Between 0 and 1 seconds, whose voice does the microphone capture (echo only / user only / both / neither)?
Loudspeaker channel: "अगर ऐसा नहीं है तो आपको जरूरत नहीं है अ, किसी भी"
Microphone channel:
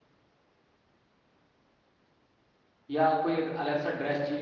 neither